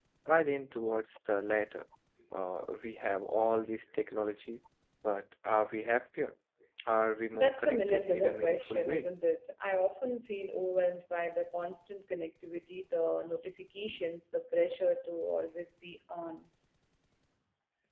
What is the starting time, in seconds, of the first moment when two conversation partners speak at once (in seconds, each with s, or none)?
7.3 s